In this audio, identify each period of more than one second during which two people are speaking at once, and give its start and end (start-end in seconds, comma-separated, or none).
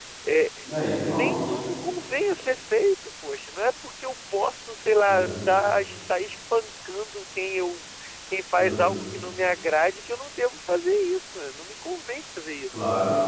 none